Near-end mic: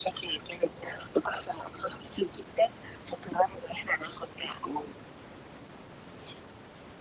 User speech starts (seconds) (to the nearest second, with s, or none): none